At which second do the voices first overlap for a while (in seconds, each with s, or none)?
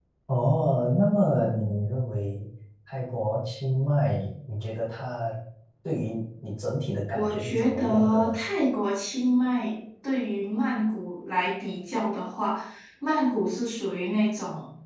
7.1 s